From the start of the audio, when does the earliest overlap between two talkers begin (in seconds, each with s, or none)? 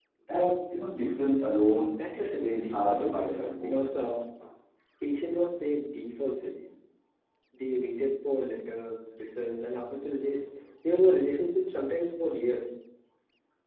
1.9 s